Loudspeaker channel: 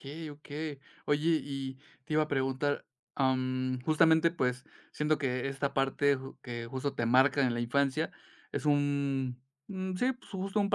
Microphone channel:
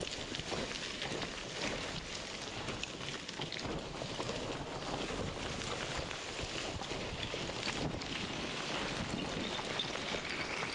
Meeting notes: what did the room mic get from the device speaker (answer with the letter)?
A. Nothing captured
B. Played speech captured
A